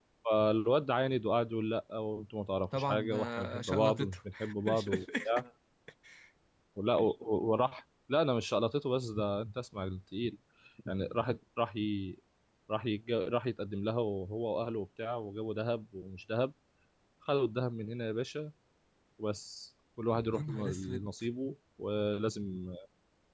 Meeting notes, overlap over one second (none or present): present